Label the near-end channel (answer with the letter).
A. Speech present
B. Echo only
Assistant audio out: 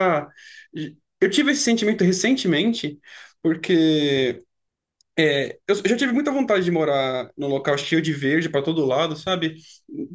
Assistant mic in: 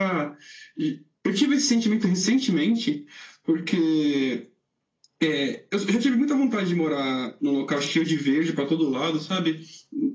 B